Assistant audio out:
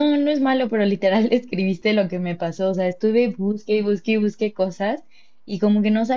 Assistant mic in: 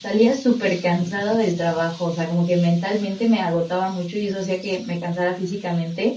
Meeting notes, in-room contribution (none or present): present